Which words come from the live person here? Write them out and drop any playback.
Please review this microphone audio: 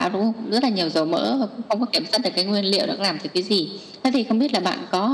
none

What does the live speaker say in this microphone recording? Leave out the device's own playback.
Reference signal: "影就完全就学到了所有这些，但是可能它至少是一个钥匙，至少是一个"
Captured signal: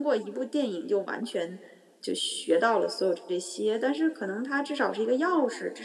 none

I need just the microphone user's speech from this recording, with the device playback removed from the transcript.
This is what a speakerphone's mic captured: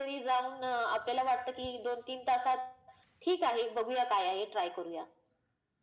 none

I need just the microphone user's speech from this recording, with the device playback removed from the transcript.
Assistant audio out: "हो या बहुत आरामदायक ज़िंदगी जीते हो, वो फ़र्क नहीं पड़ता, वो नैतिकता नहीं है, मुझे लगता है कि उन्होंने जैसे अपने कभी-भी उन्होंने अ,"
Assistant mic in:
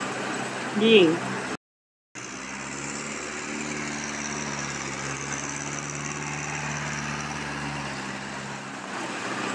जी।

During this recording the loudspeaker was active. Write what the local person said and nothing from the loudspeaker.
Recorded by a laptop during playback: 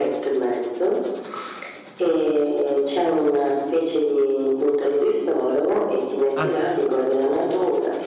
ah, sì.

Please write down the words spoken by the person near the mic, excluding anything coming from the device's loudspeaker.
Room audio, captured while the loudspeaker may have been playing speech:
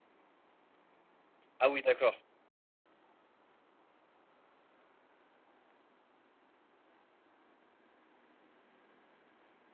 Ah oui, d'accord.

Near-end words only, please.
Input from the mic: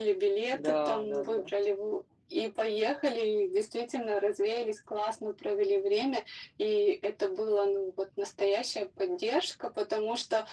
Да, да, да.

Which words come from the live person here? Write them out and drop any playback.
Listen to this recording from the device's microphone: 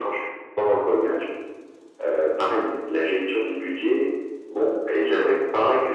none

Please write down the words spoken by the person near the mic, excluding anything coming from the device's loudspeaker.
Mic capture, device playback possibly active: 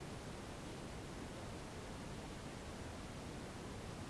none

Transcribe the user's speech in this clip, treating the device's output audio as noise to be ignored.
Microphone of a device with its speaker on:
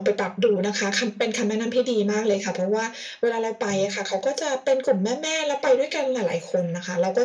none

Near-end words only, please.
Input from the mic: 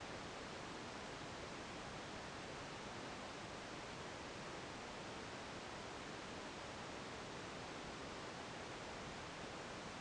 none

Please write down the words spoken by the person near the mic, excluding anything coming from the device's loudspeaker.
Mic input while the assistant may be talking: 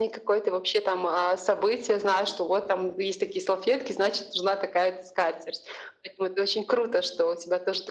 none

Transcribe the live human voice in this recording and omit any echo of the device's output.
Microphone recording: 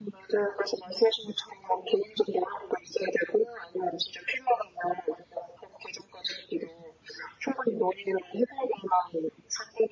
none

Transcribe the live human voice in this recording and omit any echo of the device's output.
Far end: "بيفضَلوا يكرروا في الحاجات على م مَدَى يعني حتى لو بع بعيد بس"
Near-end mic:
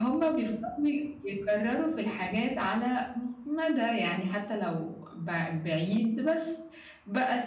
none

